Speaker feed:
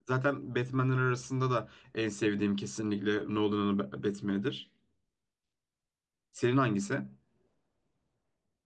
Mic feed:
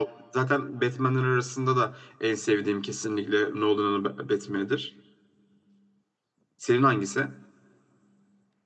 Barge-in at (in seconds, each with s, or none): none